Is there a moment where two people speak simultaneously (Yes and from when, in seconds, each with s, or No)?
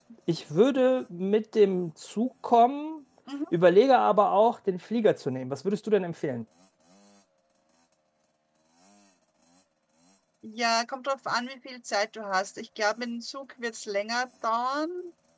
No